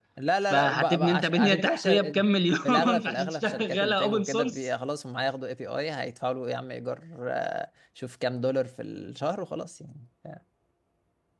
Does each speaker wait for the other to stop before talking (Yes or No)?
No